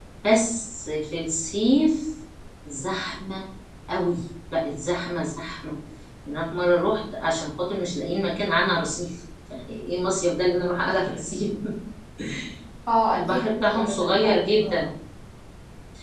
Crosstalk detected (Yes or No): Yes